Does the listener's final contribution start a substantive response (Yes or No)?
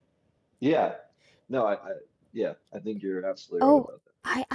Yes